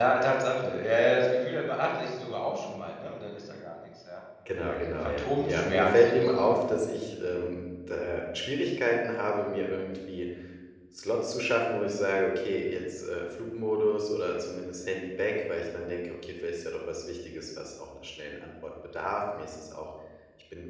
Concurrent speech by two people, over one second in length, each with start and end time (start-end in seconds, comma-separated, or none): 4.6-6.7